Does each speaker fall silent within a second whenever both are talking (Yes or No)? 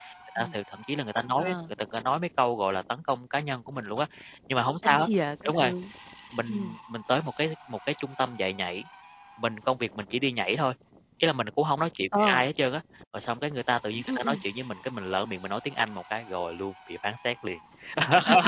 Yes